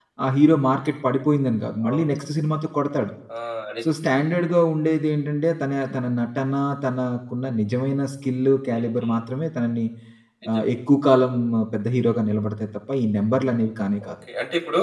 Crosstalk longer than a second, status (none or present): none